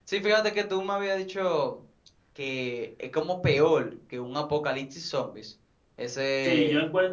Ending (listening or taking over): taking over